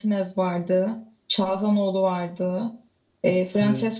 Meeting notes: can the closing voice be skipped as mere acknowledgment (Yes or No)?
Yes